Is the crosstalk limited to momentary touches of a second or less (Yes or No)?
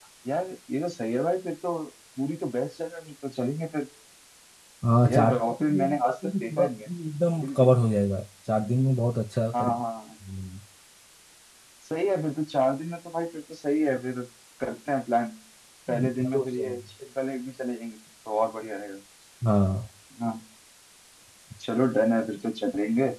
No